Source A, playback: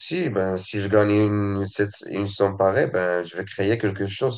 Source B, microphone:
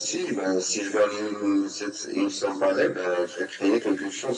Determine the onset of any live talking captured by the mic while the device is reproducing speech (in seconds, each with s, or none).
none